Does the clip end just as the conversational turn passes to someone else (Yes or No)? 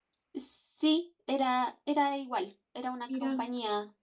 No